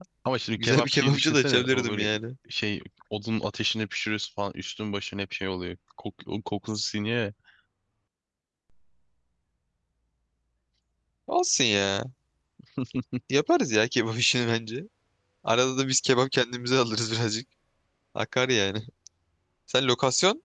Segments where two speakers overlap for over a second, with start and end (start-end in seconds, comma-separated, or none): 0.6-2.1